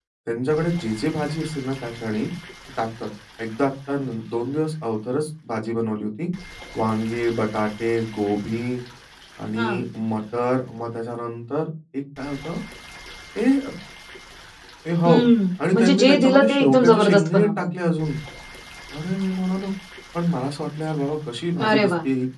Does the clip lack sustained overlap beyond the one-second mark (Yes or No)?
No